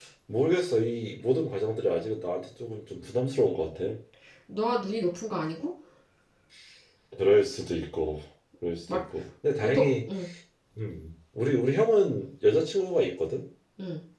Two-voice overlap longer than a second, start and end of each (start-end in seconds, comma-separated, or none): none